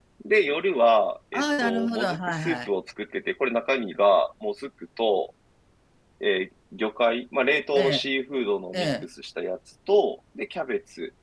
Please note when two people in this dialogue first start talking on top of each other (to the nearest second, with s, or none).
1 s